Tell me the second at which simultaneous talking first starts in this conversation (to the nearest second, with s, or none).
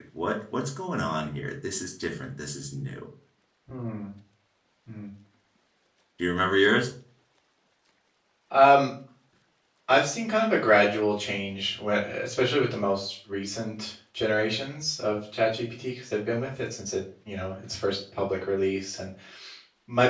none